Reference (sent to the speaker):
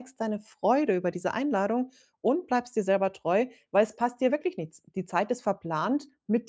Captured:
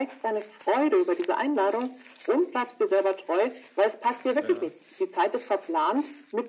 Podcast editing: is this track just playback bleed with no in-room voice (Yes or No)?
No